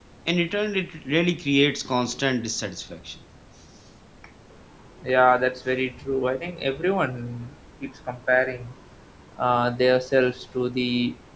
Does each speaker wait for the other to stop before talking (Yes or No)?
Yes